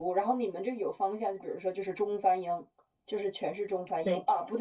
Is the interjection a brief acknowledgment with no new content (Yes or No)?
Yes